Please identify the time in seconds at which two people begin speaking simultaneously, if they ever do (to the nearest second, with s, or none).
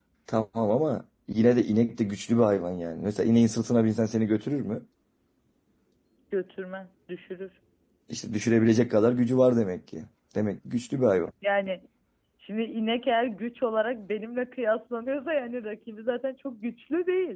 none